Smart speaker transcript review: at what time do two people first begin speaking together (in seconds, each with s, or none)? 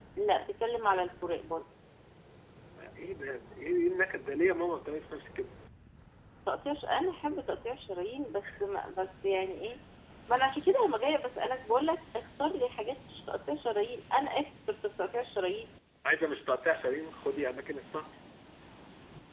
none